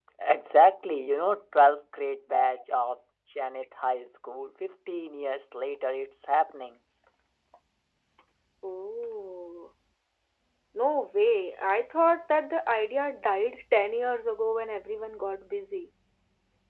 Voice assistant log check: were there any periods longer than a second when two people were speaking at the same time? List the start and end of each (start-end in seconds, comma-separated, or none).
none